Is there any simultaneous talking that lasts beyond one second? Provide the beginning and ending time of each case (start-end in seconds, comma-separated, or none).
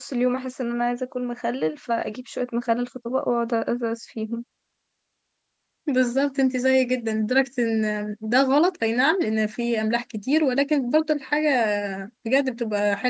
none